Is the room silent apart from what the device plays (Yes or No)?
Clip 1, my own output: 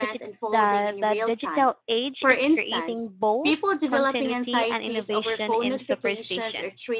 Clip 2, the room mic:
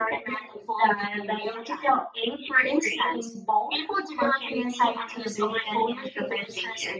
Yes